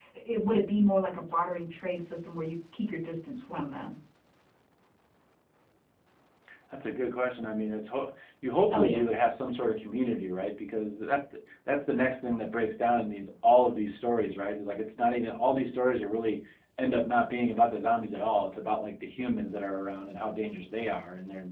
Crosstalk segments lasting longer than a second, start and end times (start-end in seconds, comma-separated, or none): none